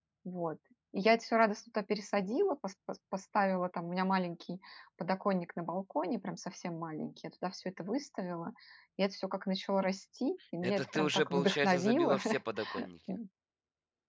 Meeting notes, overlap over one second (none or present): present